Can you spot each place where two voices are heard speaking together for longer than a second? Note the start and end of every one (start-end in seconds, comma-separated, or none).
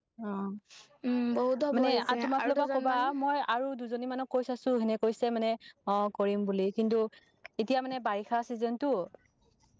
1.8-3.0